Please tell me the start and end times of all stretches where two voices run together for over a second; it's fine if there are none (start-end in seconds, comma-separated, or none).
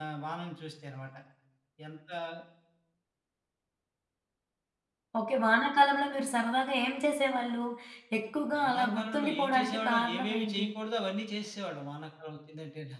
8.6-10.7